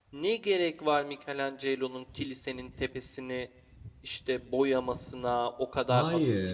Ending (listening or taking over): listening